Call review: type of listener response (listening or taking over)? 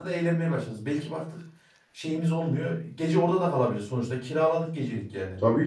taking over